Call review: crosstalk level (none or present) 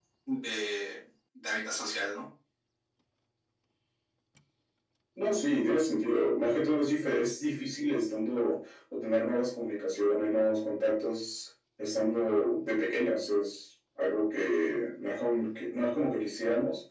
none